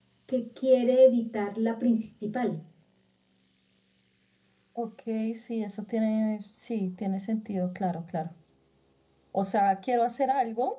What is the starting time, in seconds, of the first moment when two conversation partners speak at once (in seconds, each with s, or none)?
none